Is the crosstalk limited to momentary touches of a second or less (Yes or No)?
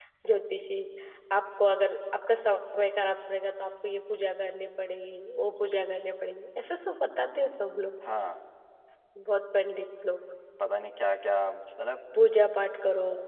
Yes